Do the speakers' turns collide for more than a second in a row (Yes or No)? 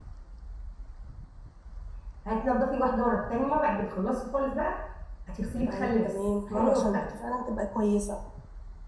Yes